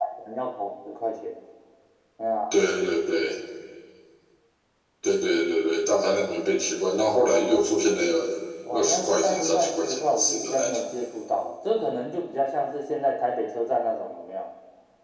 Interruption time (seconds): 9 s

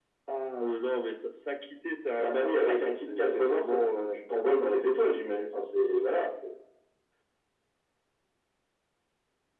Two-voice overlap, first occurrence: 2 s

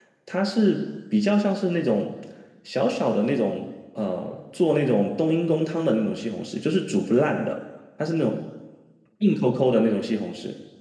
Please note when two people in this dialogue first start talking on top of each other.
none

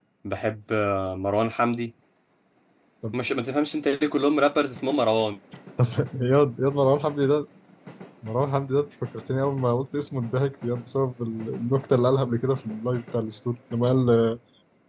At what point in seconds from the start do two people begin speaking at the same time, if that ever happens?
none

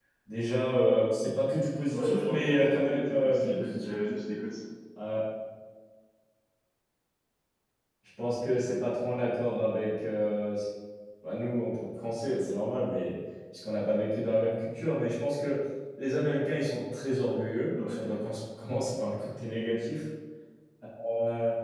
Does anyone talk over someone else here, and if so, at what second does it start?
2 s

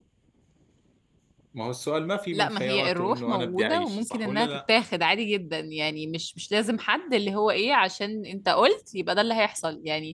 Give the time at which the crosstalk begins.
2 s

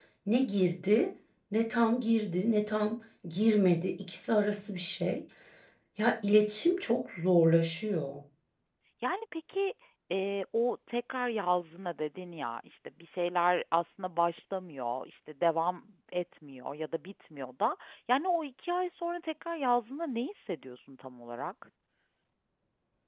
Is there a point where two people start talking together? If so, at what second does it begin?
none

